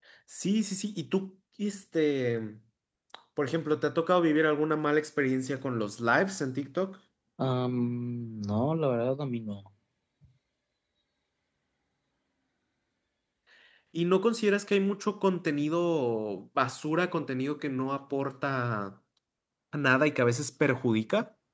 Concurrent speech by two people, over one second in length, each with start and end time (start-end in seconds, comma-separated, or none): none